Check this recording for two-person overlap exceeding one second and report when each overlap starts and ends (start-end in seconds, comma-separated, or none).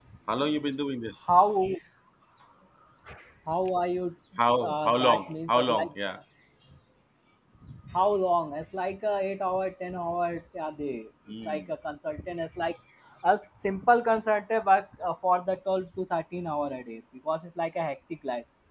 4.6-5.9